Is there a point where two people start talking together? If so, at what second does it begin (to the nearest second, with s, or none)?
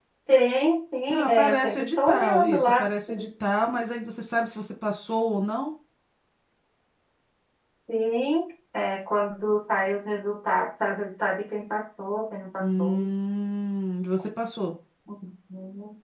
1 s